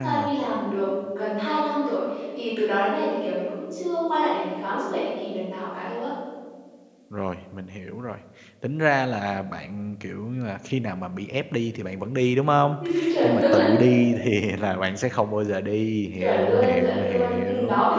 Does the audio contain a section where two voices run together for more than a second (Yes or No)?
Yes